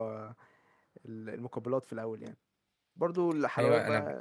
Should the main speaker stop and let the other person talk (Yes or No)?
Yes